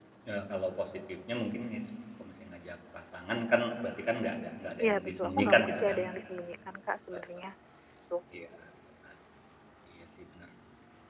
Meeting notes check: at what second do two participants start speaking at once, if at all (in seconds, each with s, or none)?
4.8 s